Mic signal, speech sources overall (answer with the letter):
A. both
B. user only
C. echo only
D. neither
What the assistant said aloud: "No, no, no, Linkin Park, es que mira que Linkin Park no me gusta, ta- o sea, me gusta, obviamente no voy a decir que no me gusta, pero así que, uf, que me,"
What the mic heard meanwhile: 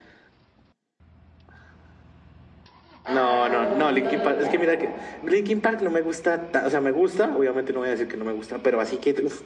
A